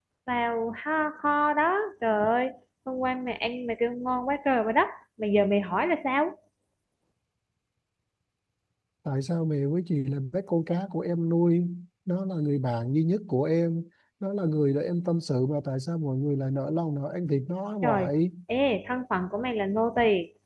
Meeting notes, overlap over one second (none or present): none